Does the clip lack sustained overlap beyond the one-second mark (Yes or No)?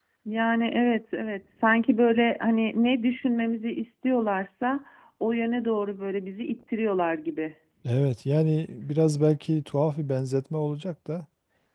Yes